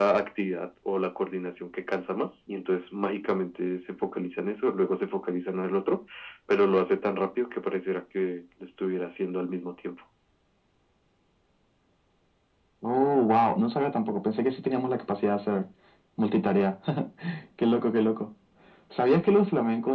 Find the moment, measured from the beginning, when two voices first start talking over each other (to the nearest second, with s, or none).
none